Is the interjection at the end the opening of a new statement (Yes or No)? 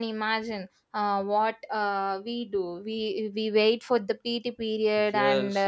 Yes